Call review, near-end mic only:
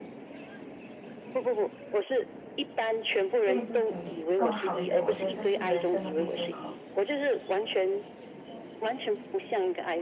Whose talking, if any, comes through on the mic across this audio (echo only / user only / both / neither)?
both